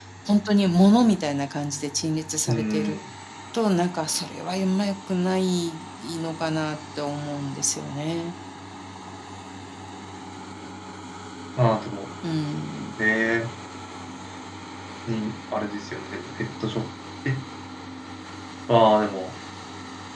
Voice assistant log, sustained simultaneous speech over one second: none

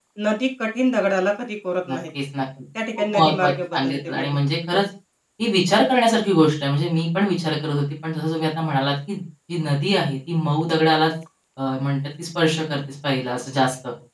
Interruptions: present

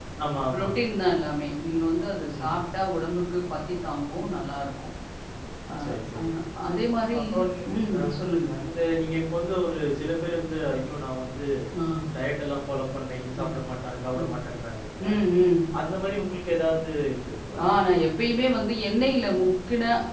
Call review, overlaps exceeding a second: none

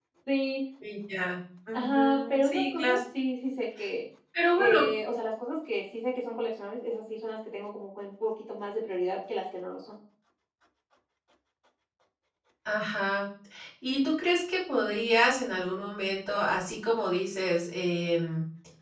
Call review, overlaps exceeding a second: present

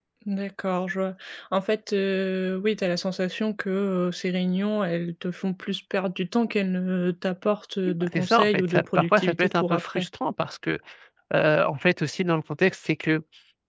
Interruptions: present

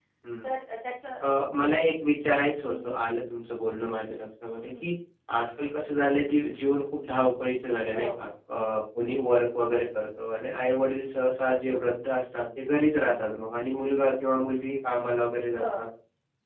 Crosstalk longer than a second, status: none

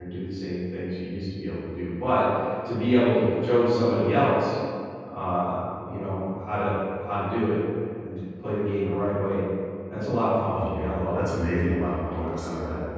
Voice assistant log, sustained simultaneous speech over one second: present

